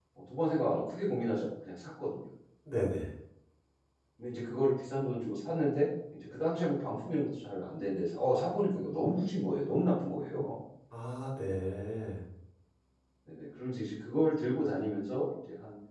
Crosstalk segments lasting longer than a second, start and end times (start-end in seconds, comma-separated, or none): none